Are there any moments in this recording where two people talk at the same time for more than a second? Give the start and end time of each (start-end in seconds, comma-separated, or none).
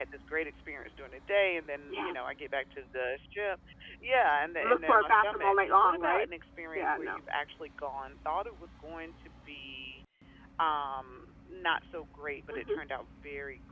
4.6-6.3